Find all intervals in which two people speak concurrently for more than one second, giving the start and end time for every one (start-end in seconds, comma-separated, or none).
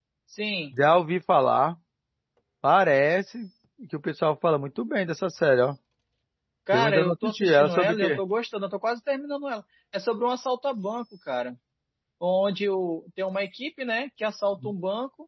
6.7-8.2